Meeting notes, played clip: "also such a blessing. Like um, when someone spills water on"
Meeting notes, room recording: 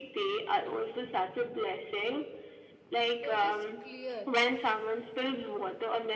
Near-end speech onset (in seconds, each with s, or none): 3.2 s